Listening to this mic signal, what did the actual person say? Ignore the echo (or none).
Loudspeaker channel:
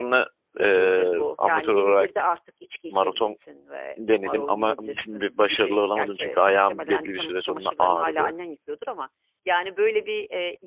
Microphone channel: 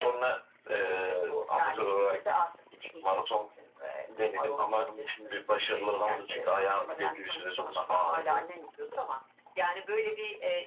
none